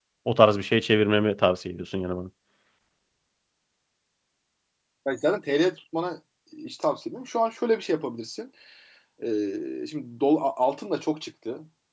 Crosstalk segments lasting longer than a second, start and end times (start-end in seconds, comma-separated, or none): none